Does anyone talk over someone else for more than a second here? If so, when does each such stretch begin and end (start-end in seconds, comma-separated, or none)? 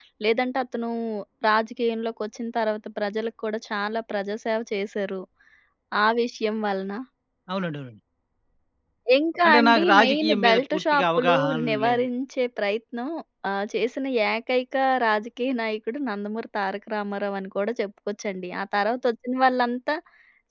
9.4-12.1